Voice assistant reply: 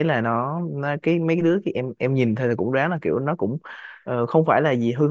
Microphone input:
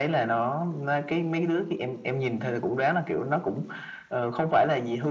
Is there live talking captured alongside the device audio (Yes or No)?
No